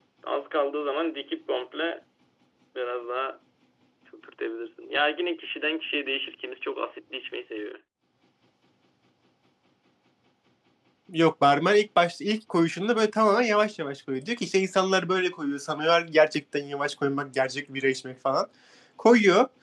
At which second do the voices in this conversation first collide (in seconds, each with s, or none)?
none